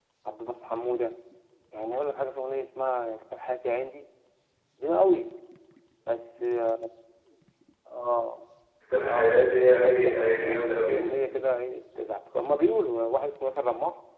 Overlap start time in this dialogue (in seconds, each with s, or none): 9.0 s